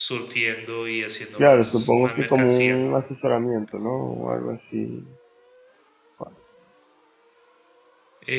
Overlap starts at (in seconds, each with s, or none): 1.4 s